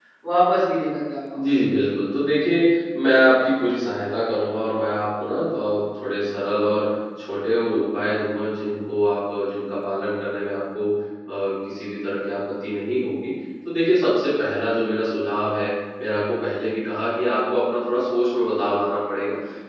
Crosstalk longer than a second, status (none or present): none